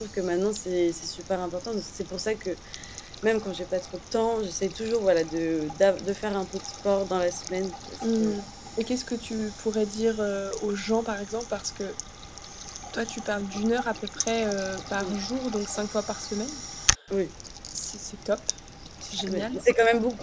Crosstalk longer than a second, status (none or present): none